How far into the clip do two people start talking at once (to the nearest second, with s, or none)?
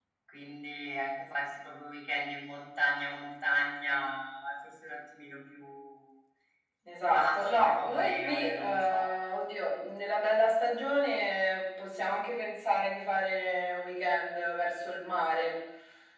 7 s